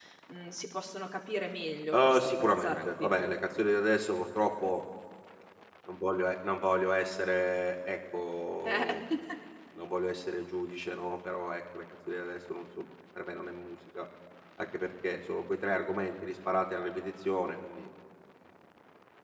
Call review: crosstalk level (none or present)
present